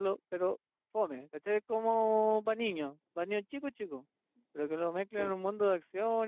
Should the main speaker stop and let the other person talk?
No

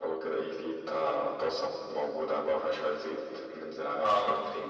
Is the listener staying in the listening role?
Yes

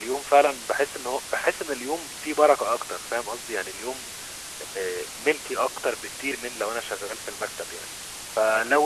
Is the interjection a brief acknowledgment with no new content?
Yes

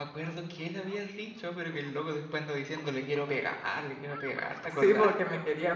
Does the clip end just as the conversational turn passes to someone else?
Yes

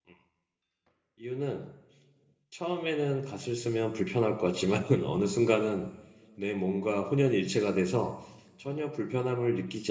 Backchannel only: Yes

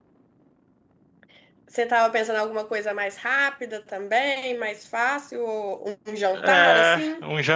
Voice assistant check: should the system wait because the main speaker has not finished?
No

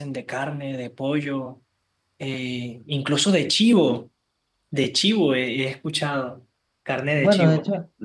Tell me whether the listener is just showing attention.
No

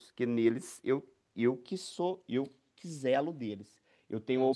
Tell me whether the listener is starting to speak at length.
No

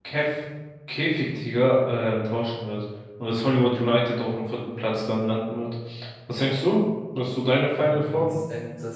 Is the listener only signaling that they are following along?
No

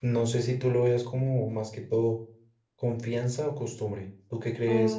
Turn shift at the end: Yes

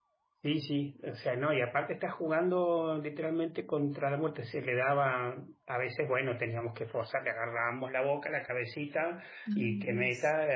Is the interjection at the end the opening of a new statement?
No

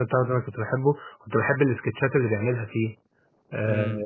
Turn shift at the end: Yes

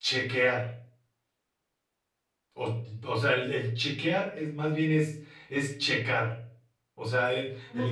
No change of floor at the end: Yes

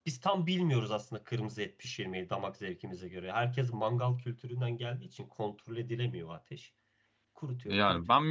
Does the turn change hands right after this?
Yes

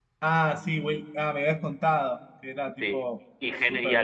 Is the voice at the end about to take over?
Yes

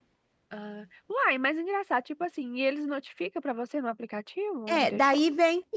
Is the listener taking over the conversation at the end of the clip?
Yes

